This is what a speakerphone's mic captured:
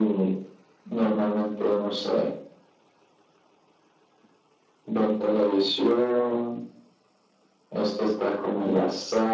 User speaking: No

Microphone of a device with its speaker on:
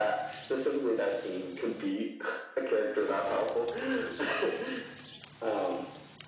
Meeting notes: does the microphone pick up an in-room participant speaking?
No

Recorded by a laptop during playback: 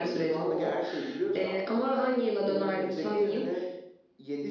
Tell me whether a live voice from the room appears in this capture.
No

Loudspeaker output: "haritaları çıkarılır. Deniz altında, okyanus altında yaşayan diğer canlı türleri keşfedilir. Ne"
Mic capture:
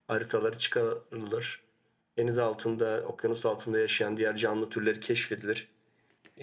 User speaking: No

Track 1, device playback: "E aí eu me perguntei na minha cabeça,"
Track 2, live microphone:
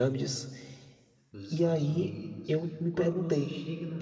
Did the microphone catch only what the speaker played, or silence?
No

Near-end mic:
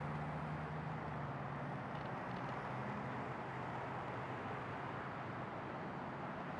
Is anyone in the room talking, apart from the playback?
No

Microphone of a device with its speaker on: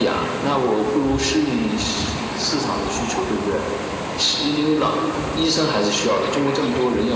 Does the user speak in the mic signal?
No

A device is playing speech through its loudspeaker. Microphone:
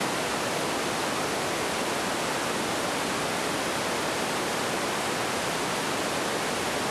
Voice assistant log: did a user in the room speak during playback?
No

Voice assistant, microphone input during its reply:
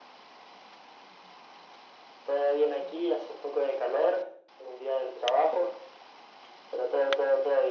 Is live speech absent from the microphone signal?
Yes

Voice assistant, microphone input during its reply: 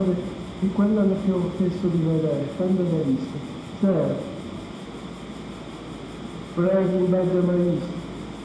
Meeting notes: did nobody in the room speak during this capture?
Yes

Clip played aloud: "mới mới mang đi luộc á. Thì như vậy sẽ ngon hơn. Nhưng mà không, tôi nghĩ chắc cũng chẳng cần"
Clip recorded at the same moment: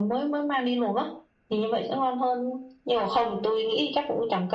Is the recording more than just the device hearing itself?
No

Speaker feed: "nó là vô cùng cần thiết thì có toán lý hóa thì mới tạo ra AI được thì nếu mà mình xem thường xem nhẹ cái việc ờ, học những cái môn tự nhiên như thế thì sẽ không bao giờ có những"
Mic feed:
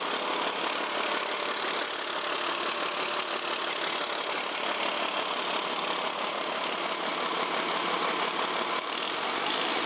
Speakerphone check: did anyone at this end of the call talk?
No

